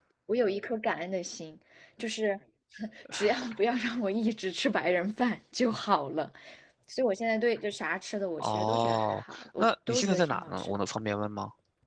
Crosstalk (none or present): present